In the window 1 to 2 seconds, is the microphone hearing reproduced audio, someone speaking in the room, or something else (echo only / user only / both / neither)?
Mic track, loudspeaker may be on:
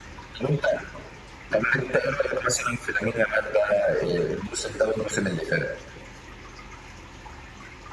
echo only